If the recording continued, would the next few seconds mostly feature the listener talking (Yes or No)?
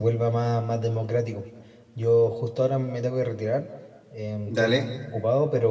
No